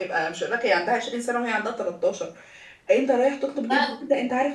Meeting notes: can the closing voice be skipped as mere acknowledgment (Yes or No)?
Yes